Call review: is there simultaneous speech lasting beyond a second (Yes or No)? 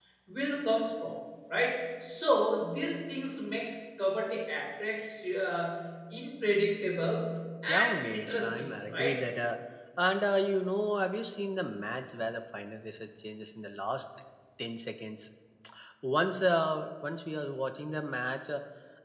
Yes